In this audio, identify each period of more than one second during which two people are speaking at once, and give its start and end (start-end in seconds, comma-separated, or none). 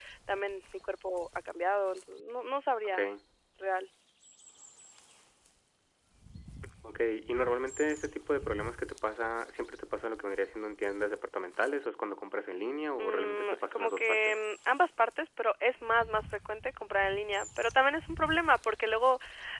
13.0-14.4